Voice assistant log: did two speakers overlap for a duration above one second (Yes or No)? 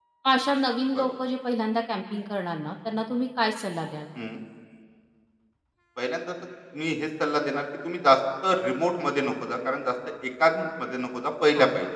No